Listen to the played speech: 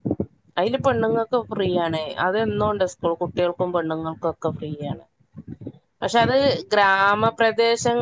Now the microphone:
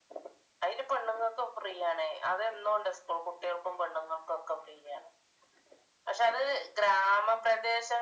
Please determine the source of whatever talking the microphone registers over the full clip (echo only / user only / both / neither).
echo only